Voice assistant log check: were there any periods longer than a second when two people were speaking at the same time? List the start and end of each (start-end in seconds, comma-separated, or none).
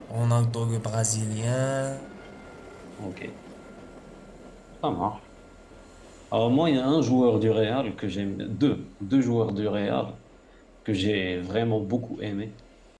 none